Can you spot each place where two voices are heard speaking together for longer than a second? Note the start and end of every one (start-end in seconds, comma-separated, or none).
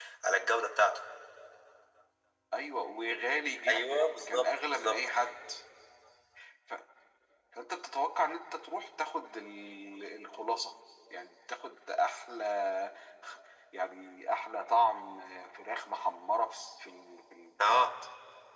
3.7-5.0